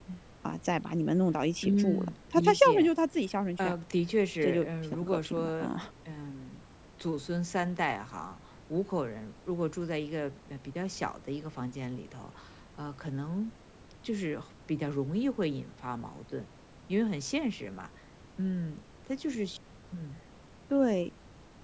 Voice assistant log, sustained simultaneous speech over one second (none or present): present